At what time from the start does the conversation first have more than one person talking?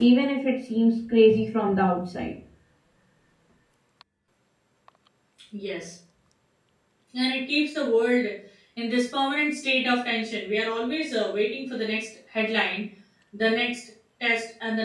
none

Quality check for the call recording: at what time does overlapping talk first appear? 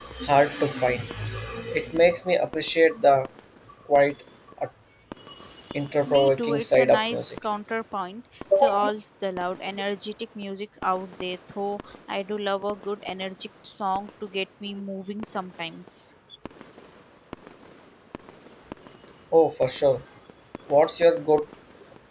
6.1 s

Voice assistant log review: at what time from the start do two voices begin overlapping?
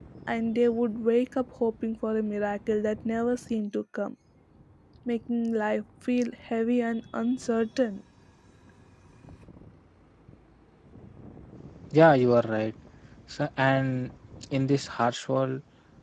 none

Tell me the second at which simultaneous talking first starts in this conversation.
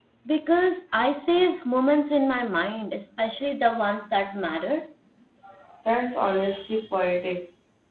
none

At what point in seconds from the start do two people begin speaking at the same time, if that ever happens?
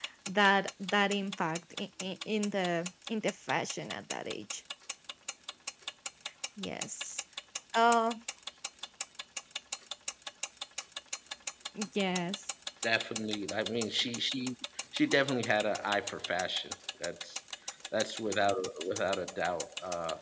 none

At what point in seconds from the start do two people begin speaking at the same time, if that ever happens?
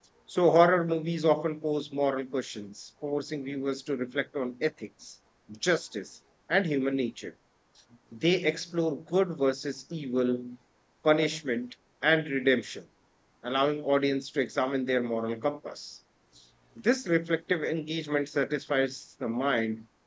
none

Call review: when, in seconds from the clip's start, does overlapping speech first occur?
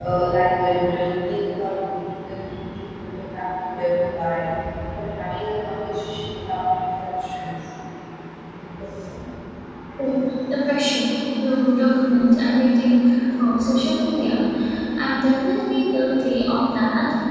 none

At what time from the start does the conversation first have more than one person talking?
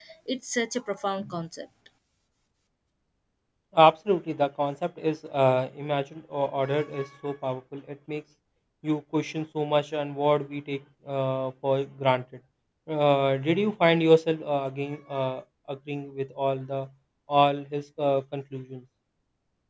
none

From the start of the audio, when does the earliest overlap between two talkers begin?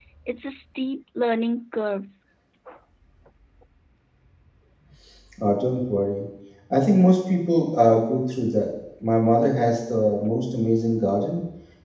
none

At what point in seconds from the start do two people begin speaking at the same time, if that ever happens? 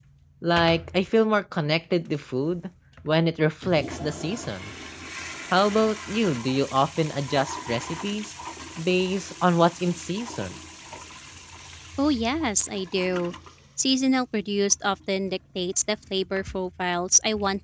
none

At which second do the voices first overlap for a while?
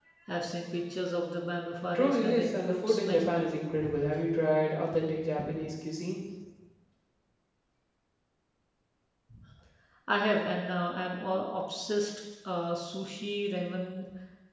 1.9 s

